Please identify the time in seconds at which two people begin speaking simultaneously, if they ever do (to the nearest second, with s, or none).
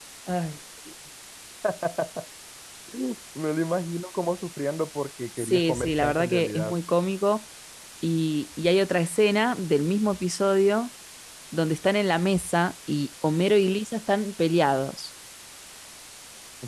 5 s